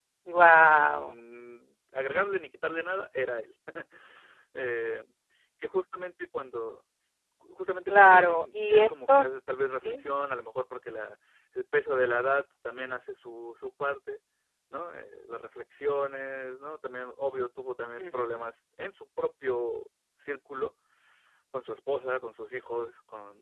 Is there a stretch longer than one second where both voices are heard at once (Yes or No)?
Yes